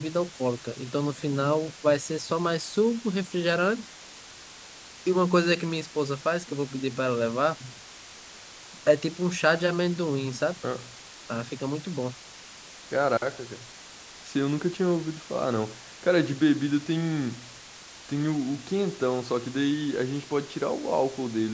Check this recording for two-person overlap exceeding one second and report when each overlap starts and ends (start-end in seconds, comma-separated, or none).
none